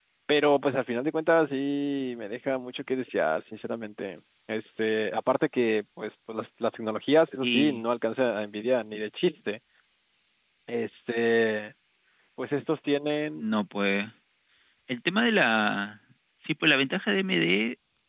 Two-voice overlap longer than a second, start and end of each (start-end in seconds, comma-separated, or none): none